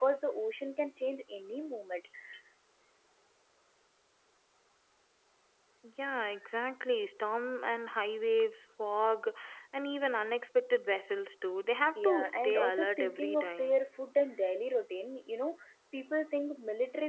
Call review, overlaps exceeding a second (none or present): present